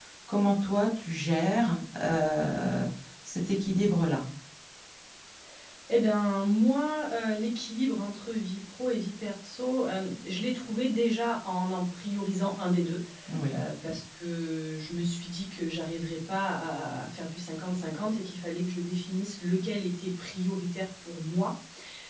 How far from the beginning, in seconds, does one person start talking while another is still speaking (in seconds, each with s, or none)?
none